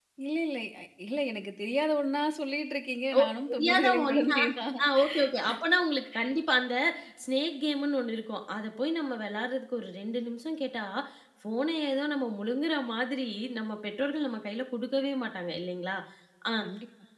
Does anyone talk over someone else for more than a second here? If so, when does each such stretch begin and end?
3.2-4.4

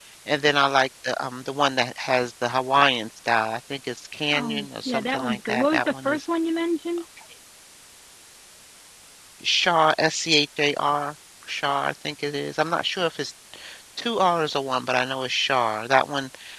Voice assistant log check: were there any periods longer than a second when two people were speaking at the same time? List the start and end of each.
4.3-6.2

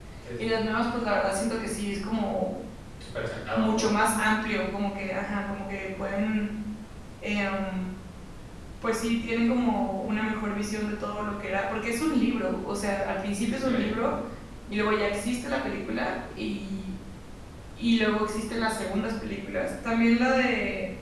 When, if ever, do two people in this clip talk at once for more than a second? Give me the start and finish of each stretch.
none

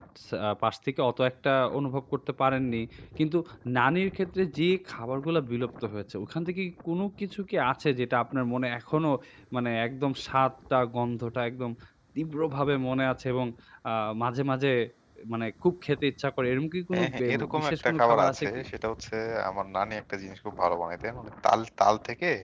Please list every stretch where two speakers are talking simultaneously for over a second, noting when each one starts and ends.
16.9-18.5

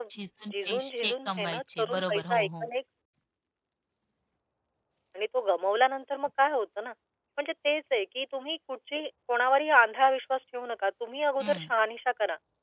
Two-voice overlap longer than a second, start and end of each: 0.5-2.7

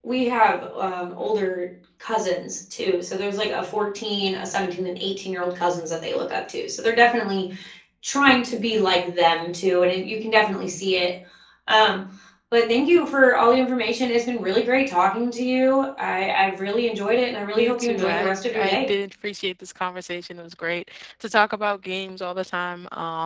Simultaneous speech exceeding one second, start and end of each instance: 17.6-18.8

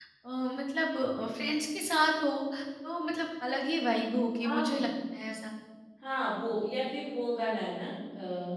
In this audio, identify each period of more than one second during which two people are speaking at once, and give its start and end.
none

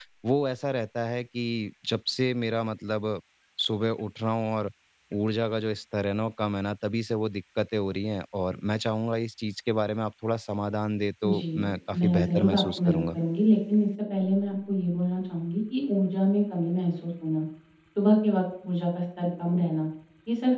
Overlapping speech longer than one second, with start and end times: 11.3-13.2

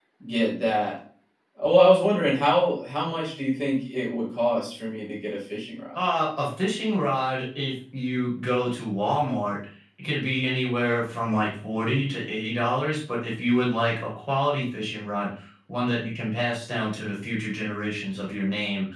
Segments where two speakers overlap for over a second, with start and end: none

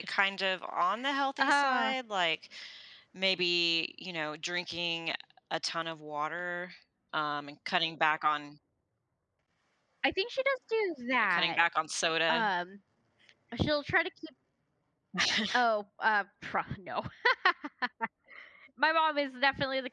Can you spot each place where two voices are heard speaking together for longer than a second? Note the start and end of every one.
none

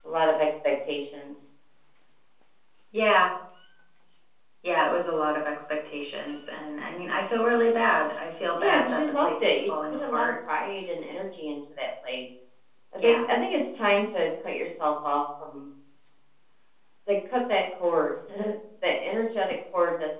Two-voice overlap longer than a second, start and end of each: 8.5-10.3

